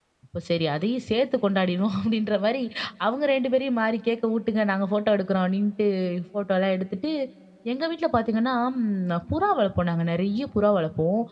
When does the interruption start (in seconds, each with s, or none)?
none